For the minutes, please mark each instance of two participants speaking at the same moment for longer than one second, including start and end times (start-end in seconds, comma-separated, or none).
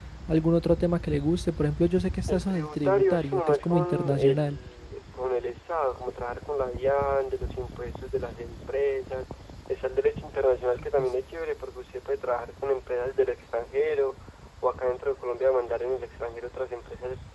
2.3-4.6